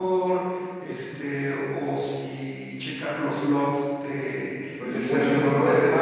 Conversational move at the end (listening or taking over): taking over